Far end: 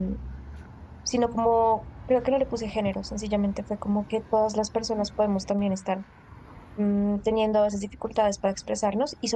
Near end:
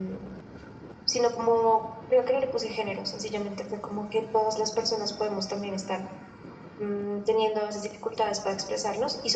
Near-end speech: none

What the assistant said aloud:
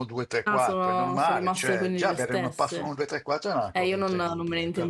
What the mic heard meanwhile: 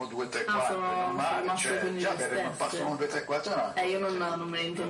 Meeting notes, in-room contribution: none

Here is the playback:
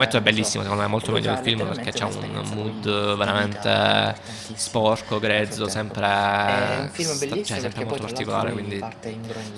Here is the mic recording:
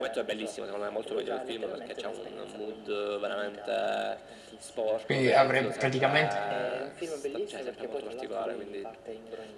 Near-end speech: present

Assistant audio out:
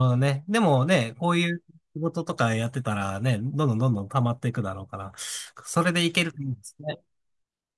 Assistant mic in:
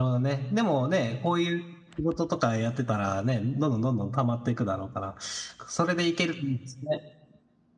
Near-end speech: none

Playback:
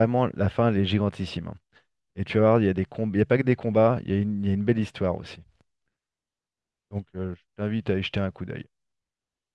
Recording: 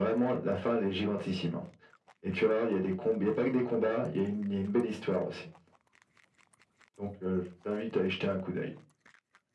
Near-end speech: none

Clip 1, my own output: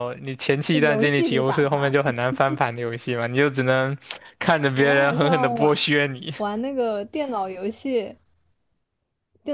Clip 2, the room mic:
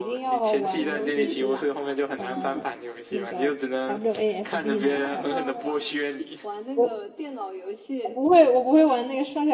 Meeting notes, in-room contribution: present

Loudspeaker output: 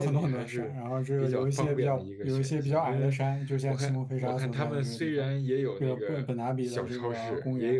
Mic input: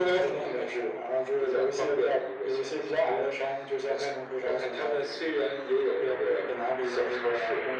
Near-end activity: none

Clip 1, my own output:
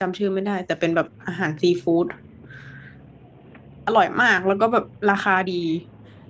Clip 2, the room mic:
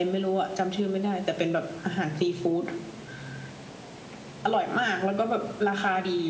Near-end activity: none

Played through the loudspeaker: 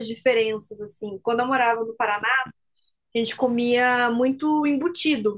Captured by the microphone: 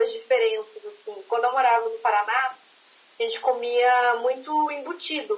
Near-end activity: none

